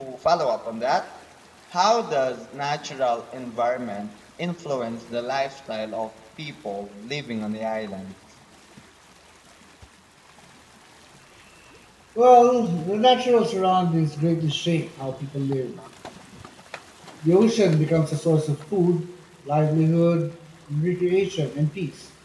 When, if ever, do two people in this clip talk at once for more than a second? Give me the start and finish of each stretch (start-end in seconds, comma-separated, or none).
none